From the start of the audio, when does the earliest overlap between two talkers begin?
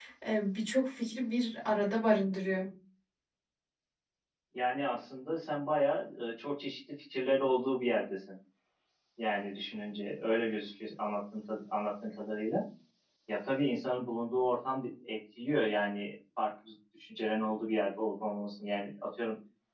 none

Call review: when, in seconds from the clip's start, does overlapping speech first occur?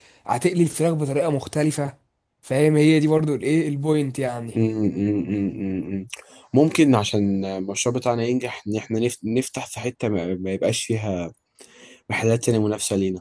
none

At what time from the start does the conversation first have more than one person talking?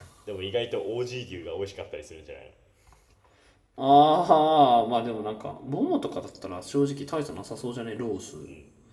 none

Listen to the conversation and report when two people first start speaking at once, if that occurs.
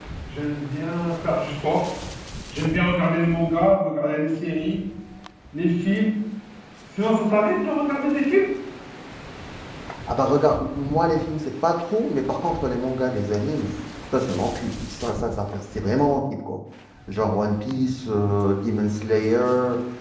none

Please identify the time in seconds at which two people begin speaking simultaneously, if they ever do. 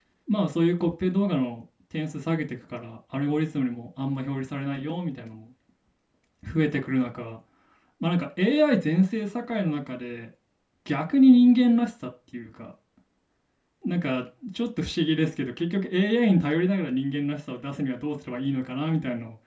none

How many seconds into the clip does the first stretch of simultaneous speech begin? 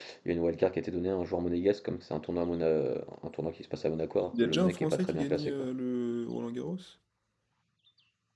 4 s

